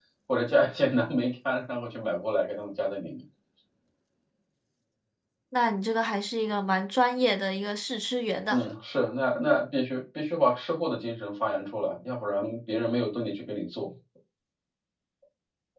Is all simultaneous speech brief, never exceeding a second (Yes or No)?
Yes